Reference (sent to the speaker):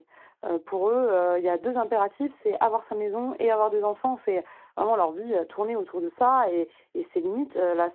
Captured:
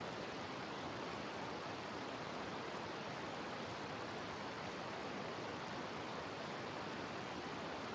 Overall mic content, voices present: neither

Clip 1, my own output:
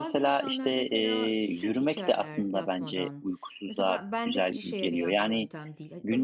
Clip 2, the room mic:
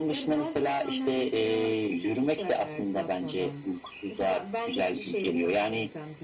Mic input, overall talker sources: echo only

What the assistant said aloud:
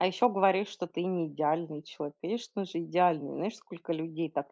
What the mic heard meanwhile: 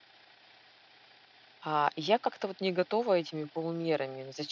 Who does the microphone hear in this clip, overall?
user only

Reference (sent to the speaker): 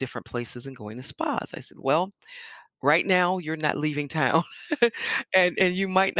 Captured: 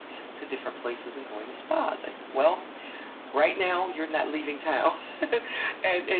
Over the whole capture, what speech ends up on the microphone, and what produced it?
echo only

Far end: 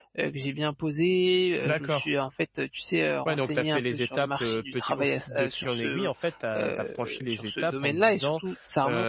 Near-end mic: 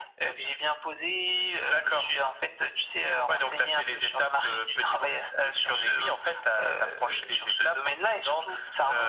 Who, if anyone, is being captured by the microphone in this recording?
echo only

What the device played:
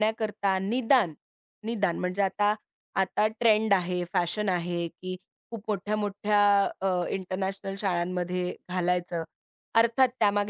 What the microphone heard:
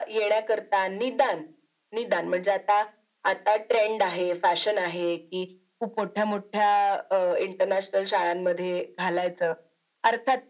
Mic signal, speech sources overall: echo only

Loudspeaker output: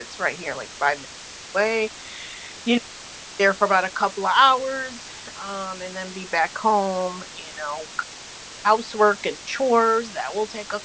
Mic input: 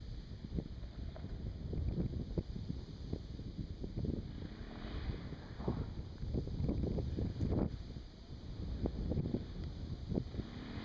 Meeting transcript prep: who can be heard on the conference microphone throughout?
neither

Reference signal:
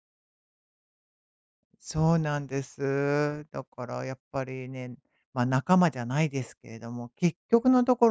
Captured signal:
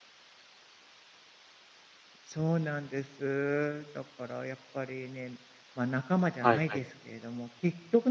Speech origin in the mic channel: both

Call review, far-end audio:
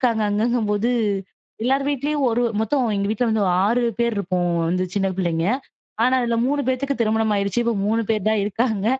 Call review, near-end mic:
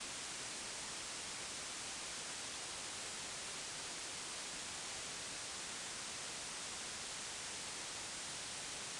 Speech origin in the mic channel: neither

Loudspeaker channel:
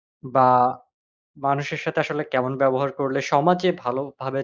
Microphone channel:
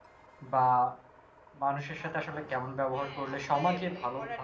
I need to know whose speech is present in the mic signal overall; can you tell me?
both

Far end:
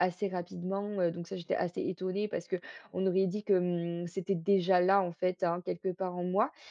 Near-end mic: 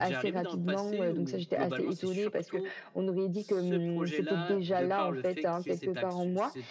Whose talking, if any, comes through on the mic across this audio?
both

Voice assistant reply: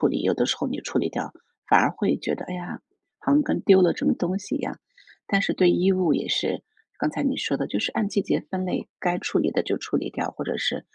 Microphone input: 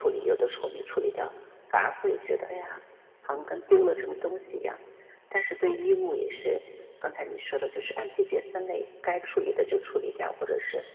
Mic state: echo only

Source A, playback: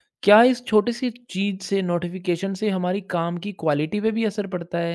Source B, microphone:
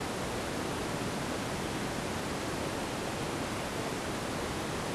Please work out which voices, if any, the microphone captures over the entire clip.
neither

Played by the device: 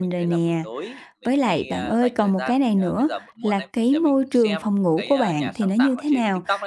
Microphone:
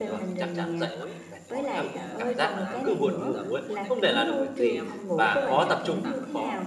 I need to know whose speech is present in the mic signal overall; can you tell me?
both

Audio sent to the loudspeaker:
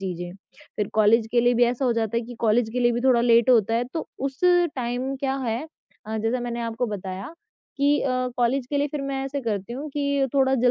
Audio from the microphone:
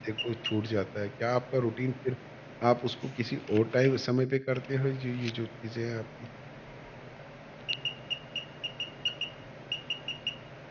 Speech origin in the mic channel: user only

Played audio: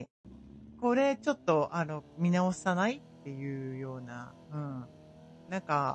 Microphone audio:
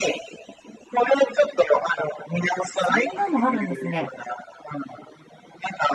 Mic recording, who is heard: both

